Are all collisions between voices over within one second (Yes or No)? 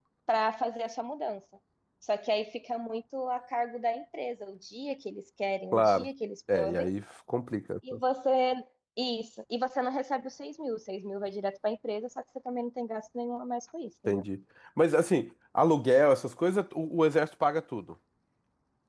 Yes